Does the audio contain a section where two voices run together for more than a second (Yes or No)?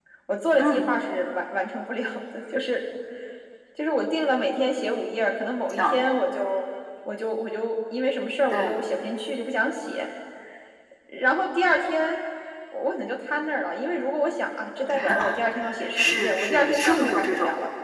Yes